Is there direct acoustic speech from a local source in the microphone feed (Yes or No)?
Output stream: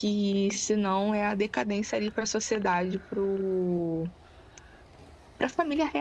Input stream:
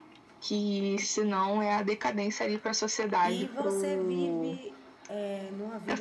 Yes